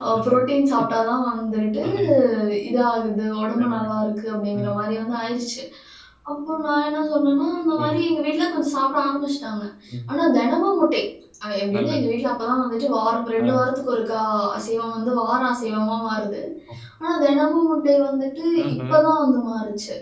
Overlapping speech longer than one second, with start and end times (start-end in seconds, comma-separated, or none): none